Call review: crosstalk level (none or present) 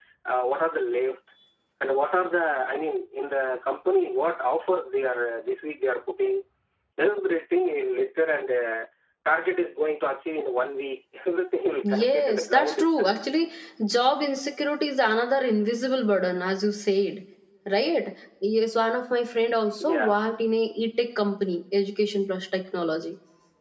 present